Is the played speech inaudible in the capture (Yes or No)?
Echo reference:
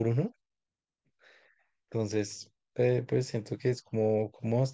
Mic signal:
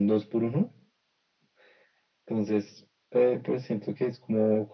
No